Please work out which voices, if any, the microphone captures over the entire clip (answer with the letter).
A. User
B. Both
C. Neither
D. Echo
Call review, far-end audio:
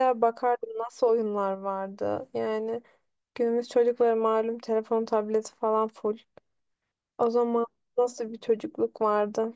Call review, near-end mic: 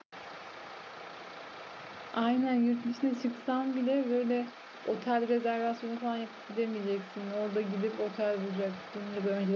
A